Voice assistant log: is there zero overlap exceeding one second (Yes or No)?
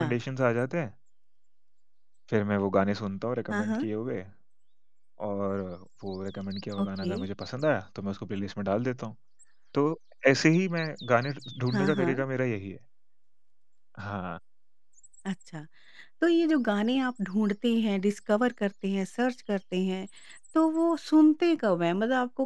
Yes